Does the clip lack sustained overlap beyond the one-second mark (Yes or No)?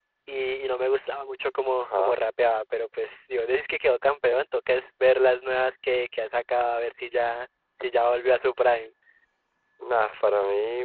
Yes